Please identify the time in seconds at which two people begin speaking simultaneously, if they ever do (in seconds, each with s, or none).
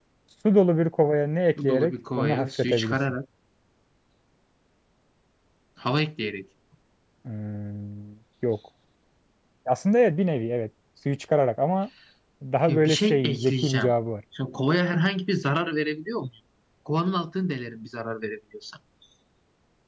1.6 s